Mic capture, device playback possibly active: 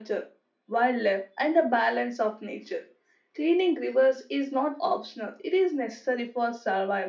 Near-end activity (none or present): none